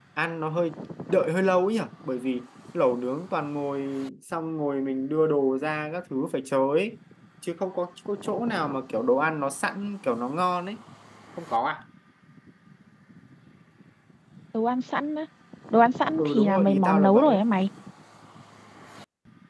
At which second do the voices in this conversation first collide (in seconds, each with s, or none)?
16.2 s